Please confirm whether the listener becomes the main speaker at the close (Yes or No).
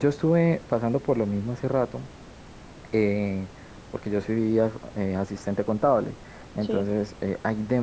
No